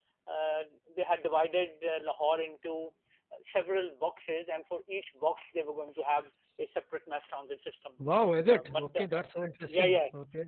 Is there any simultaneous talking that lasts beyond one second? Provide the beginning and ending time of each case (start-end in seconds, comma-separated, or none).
none